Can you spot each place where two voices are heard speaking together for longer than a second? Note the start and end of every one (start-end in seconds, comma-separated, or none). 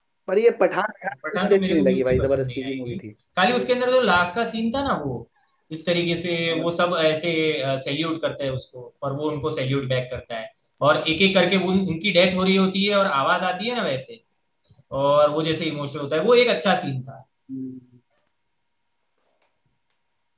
1.3-3.0